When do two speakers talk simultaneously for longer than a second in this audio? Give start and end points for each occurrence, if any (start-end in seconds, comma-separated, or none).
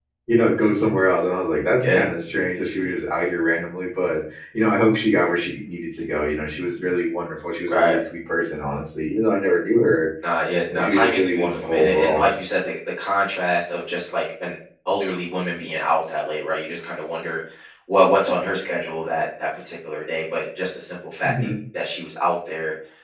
10.7-12.3